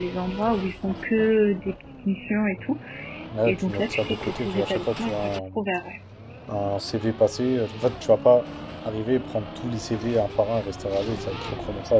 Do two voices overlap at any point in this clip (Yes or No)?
Yes